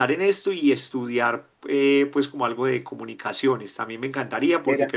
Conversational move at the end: listening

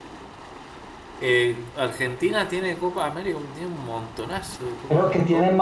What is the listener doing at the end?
taking over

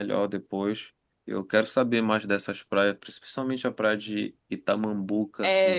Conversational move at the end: taking over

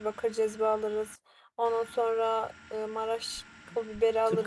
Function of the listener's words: taking over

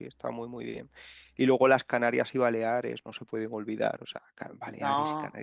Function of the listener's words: listening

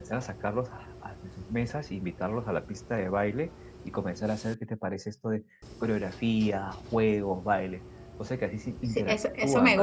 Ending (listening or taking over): taking over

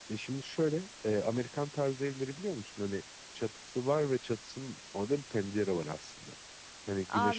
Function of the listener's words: taking over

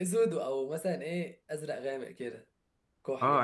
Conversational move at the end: taking over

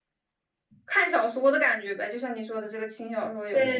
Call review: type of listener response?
taking over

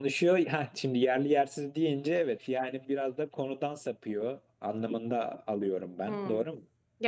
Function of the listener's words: taking over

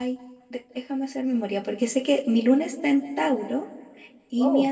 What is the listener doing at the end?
listening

